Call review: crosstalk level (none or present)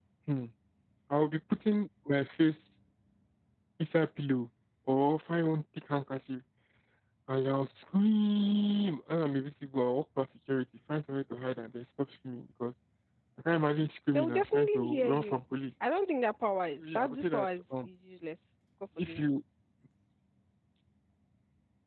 present